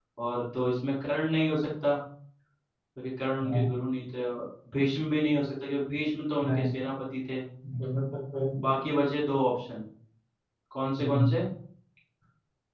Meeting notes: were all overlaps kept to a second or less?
Yes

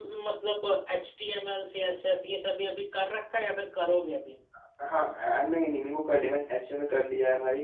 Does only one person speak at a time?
Yes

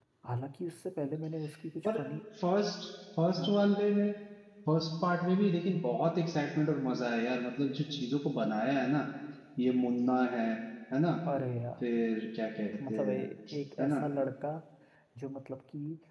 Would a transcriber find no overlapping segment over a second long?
Yes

